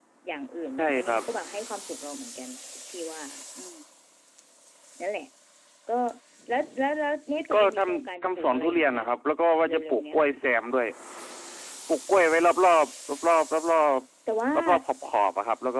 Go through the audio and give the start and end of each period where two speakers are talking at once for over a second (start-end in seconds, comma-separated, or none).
7.5-9.1